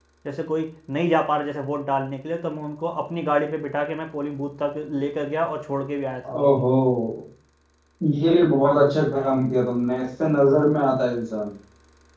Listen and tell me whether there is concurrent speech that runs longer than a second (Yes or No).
No